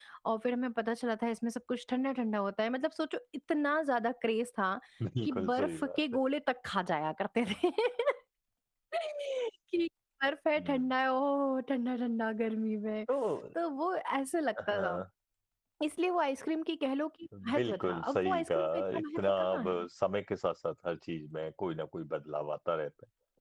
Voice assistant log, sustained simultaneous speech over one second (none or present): present